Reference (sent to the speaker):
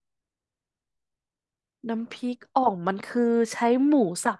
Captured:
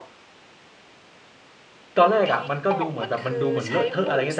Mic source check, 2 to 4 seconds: both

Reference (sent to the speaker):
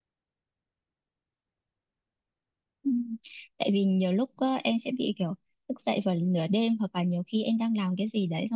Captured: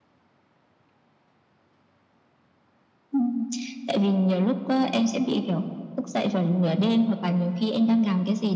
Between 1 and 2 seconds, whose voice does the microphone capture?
neither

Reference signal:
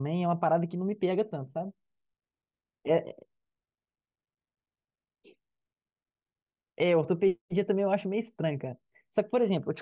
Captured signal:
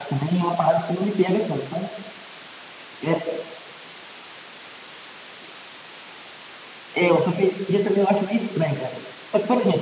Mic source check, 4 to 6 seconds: neither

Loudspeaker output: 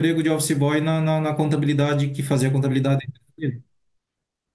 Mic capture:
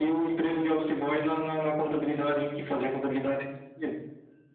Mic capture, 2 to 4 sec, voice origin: echo only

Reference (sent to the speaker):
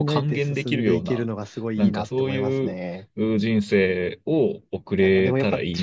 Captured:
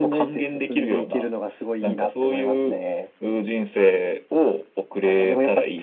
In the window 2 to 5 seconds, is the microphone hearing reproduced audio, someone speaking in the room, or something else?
echo only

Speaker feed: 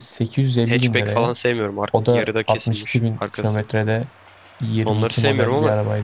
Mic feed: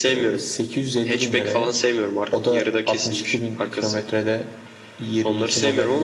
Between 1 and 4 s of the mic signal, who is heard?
echo only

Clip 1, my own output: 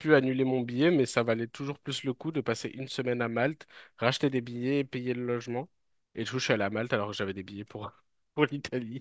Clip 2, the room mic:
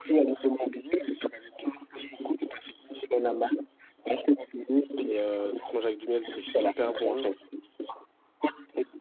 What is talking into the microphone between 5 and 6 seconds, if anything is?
both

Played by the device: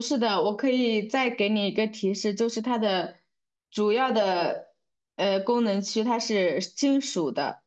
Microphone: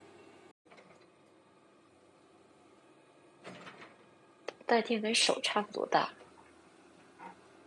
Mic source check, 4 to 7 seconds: user only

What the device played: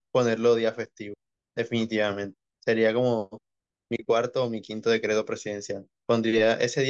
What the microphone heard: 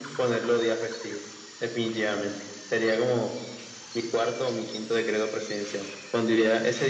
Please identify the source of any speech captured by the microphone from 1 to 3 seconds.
echo only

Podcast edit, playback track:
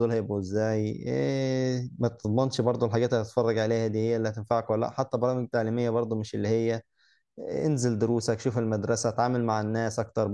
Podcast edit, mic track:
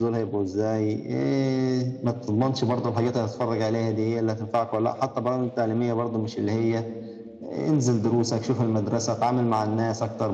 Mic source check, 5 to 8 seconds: echo only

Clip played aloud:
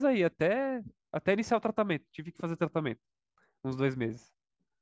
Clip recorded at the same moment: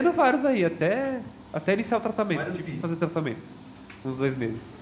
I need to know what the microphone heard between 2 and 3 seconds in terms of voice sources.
both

